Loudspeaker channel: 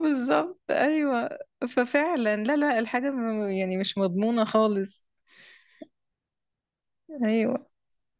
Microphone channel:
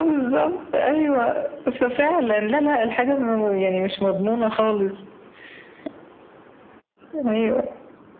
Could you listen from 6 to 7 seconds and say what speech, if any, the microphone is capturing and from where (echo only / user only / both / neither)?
neither